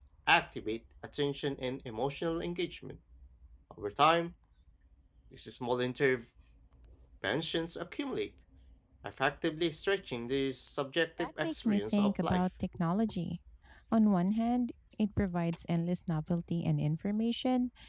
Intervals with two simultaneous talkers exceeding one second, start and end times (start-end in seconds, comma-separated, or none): 11.2-12.5